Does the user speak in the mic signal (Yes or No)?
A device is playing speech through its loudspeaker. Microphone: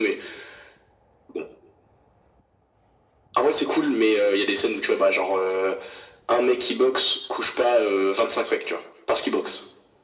No